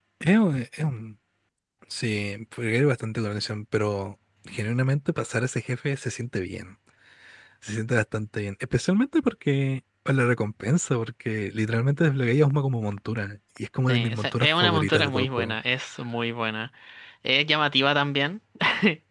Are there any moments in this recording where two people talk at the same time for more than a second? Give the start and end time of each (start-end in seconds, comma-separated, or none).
13.9-15.6